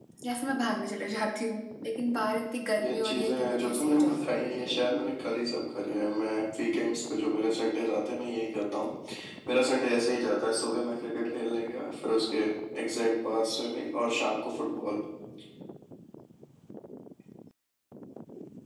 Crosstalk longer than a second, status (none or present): present